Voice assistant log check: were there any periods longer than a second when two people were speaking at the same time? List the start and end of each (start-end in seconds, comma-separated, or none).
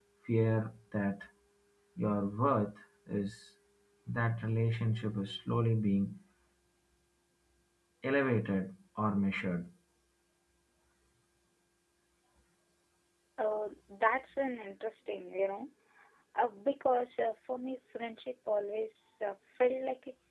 none